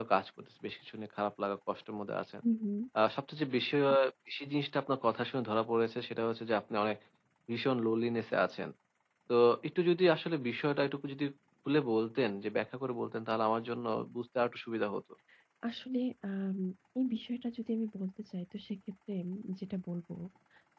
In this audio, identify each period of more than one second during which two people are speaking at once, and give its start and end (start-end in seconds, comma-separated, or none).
none